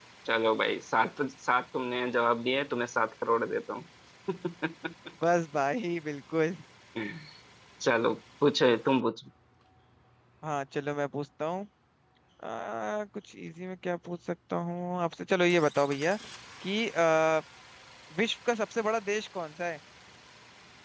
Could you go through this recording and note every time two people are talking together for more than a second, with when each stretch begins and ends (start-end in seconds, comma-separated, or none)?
none